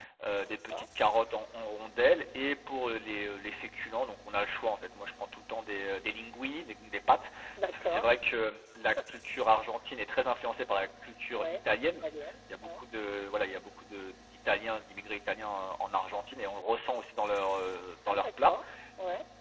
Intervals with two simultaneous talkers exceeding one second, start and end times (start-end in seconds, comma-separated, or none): none